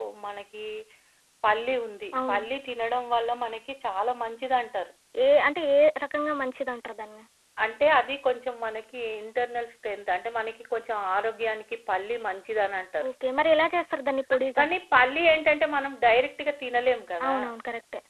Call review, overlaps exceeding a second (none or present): none